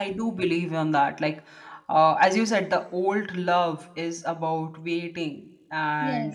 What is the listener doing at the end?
listening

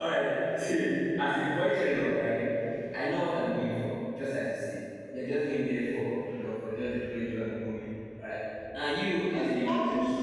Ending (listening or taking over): taking over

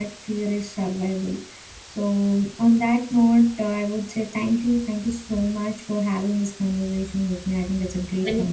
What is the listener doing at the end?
taking over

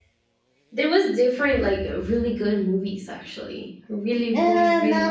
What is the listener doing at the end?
taking over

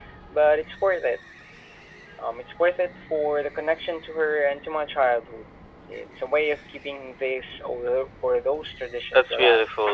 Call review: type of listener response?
taking over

